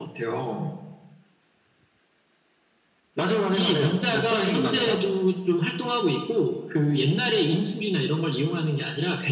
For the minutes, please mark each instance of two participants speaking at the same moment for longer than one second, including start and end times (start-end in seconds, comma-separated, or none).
3.5-5.0